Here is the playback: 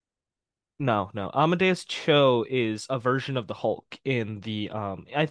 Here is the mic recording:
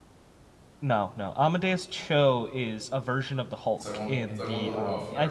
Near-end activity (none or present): present